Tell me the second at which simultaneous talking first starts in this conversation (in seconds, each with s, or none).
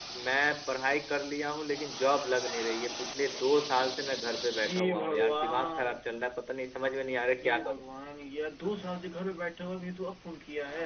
4.6 s